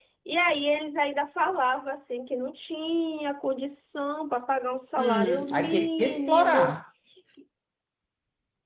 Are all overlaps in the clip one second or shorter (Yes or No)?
No